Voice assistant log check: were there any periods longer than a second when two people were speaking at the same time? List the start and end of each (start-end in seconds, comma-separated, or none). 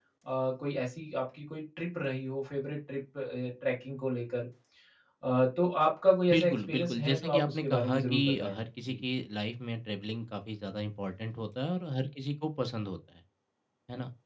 6.3-9.0